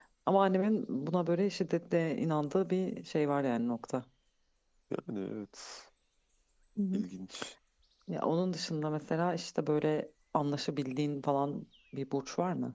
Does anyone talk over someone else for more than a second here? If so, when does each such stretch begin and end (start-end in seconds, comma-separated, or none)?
none